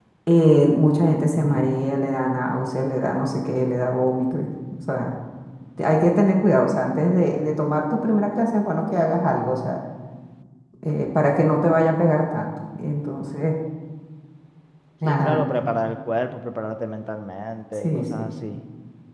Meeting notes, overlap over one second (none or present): none